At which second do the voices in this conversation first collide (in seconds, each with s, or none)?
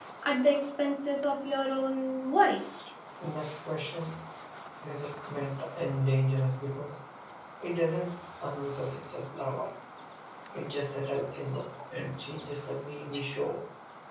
none